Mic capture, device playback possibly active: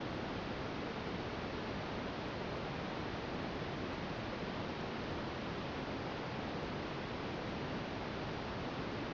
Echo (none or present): none